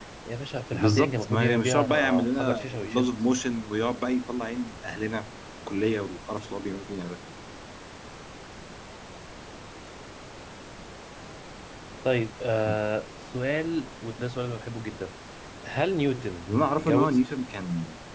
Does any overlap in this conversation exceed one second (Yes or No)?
Yes